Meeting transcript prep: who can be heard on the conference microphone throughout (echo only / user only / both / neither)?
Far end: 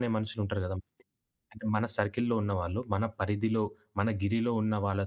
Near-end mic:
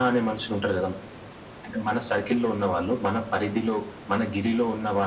echo only